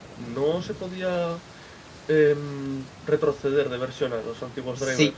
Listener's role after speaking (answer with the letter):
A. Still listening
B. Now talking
B